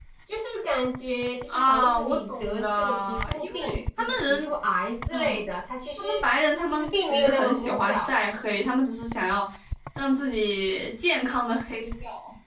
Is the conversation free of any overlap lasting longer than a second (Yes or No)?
No